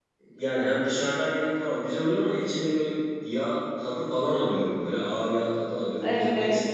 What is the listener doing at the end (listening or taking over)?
taking over